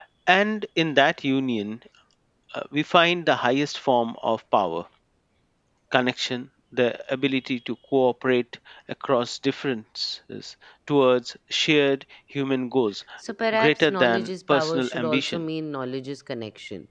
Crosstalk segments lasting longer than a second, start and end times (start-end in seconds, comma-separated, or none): 13.6-15.4